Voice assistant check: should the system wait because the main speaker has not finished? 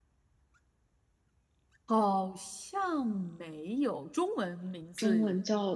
No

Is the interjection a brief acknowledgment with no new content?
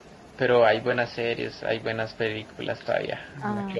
No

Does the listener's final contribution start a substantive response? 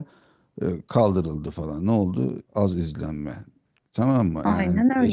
No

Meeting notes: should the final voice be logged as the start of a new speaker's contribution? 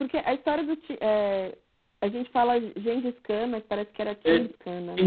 Yes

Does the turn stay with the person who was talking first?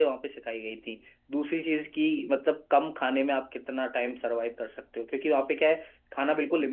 Yes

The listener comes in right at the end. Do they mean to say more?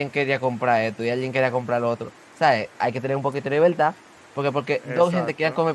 No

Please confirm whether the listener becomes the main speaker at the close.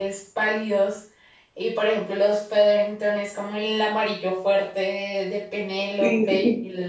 No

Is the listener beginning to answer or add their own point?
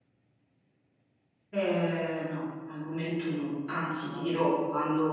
No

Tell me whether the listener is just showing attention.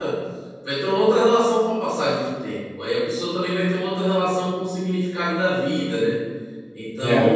Yes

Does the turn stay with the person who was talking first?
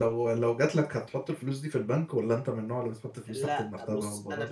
No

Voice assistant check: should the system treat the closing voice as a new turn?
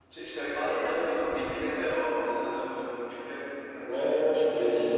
Yes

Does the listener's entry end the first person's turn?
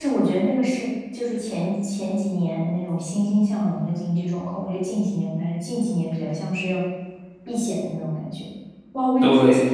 No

